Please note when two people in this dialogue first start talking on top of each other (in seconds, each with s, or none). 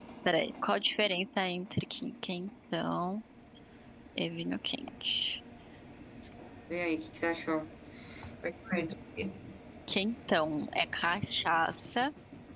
none